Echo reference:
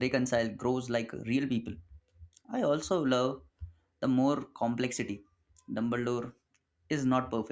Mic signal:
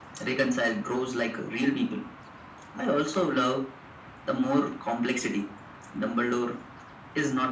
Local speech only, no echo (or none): none